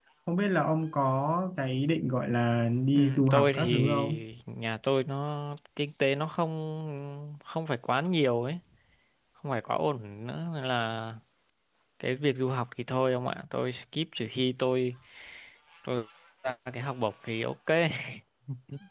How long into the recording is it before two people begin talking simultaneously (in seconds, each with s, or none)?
2.9 s